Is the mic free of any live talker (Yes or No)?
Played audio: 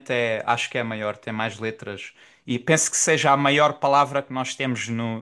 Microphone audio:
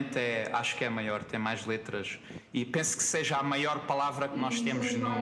No